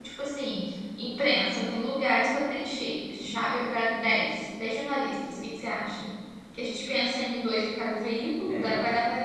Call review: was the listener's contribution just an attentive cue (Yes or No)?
Yes